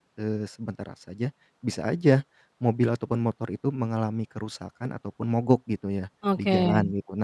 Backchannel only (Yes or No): Yes